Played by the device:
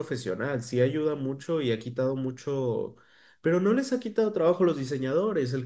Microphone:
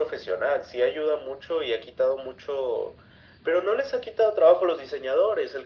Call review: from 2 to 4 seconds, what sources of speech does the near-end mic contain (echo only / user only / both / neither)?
echo only